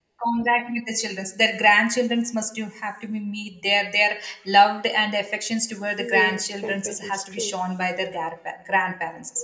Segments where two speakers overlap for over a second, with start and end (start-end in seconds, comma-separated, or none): 6.0-7.5